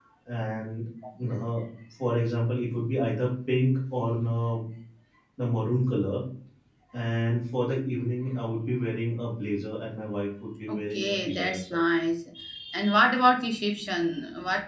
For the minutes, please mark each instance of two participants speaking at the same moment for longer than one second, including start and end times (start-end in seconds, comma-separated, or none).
10.7-11.9